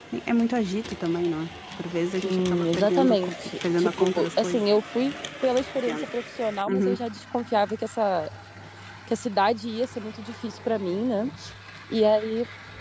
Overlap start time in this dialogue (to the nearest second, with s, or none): 2 s